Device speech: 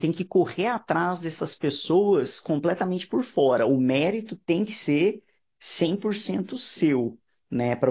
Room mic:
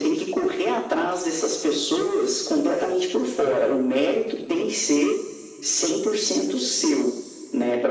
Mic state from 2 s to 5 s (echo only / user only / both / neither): echo only